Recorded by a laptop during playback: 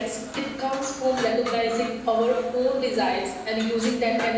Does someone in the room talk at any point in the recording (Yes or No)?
No